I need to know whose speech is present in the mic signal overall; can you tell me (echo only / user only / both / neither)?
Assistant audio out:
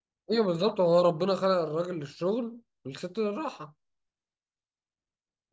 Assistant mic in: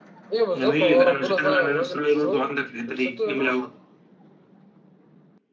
both